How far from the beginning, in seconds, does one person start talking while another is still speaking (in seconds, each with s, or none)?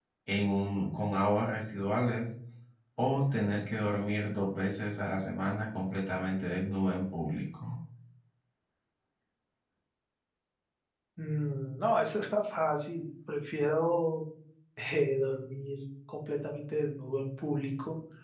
none